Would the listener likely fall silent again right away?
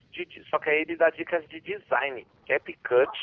Yes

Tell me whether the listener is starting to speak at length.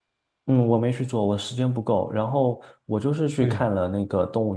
No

